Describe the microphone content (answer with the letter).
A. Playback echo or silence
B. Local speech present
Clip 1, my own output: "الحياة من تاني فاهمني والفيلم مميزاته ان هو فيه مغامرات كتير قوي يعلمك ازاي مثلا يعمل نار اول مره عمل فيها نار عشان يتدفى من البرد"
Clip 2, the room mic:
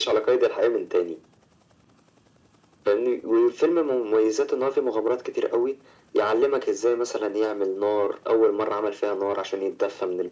A